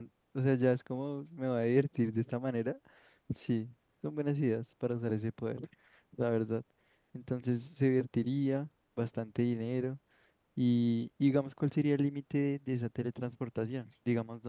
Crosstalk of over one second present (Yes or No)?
No